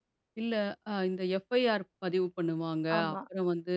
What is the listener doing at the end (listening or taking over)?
listening